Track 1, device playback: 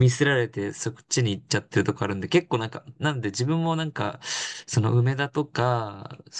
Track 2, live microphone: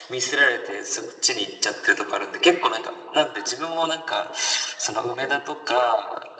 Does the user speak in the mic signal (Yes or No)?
No